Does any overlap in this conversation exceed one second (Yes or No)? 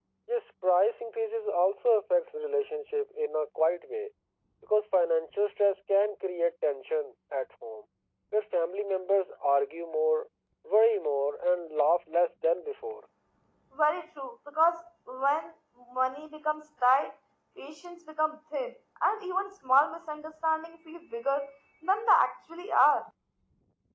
No